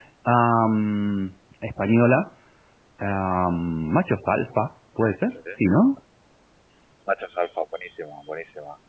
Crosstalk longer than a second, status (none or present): none